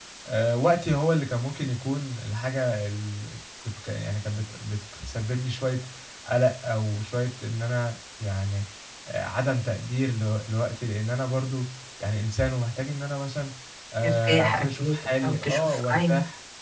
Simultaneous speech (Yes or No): Yes